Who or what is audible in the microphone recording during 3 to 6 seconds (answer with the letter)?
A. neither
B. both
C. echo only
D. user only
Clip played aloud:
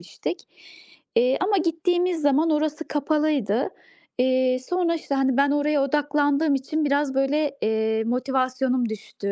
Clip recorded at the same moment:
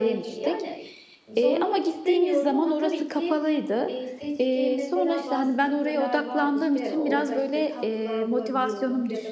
B